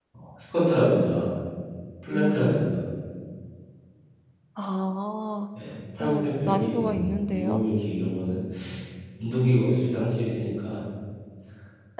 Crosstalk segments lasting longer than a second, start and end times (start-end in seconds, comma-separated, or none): 6.0-7.6